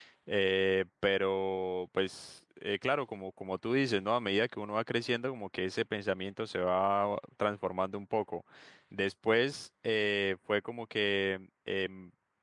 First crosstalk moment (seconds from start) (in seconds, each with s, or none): none